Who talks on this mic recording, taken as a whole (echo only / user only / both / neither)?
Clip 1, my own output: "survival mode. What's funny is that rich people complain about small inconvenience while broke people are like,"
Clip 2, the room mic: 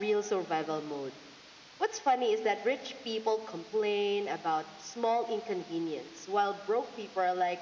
echo only